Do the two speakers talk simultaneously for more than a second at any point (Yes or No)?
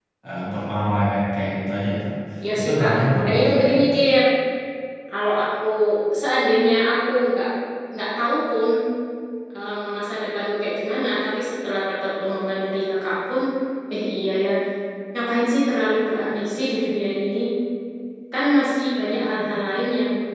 Yes